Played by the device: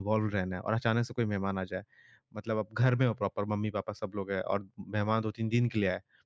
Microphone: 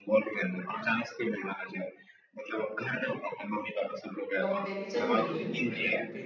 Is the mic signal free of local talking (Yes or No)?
No